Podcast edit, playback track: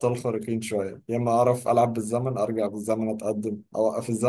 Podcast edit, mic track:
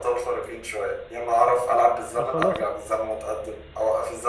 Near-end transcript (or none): اه خلاص